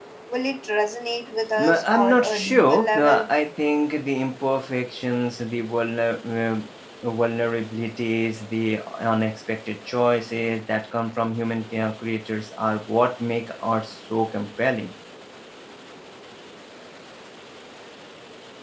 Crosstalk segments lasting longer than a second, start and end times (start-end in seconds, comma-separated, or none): 1.6-3.2